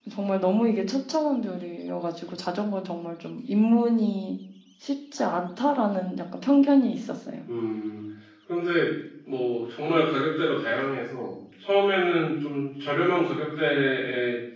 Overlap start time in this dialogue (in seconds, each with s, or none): none